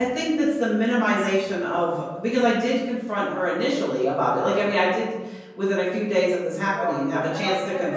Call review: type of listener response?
taking over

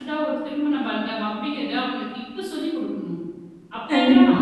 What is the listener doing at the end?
listening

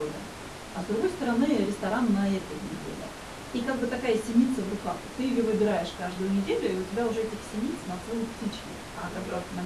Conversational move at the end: listening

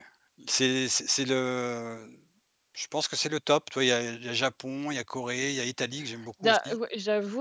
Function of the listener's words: taking over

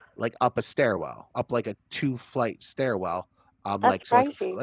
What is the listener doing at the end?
listening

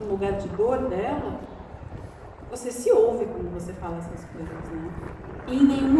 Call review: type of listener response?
taking over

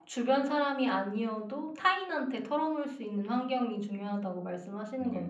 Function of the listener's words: taking over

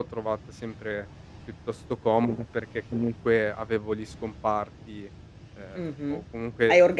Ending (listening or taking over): taking over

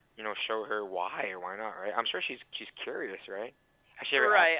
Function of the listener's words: taking over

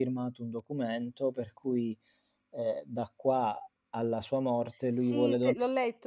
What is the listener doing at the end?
taking over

